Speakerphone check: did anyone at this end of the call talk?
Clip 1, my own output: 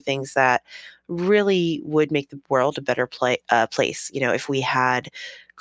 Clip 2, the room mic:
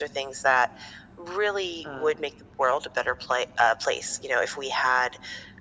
Yes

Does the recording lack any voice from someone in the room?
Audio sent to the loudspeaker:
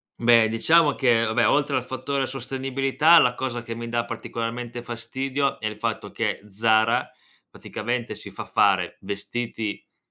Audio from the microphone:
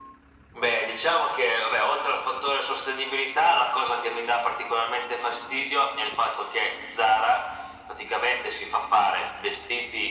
Yes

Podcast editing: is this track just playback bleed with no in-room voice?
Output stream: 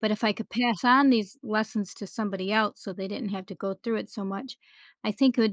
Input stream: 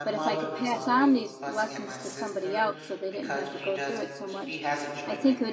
No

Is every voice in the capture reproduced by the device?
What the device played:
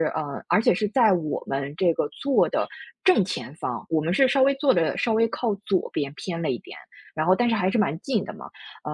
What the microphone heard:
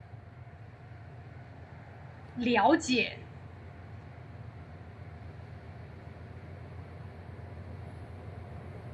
No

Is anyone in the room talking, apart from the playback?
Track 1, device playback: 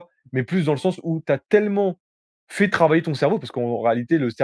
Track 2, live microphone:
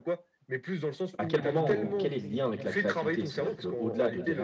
Yes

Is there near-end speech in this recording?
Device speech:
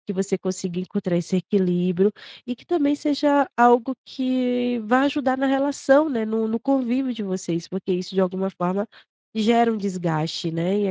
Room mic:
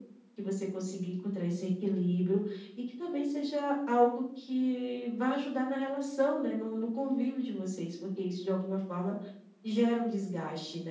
No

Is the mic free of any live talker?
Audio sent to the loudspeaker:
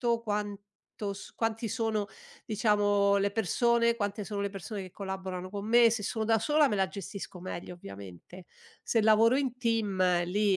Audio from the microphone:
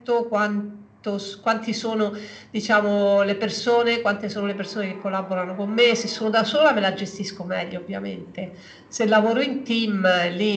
Yes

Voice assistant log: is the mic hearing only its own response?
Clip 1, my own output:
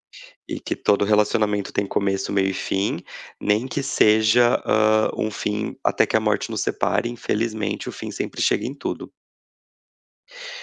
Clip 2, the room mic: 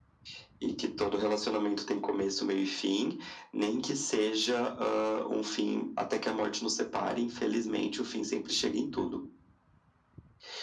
Yes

